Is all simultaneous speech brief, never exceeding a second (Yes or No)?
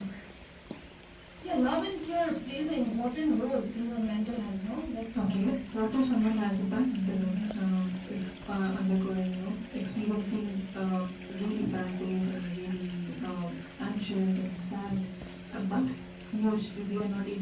Yes